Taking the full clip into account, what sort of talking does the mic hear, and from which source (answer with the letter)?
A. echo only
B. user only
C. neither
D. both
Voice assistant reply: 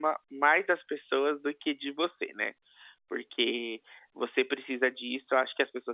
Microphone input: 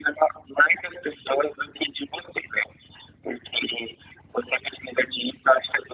A